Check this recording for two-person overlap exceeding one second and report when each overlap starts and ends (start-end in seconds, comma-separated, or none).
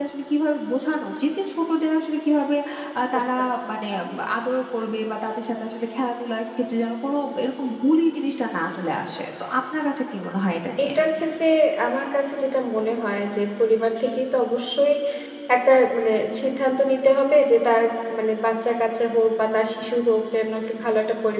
none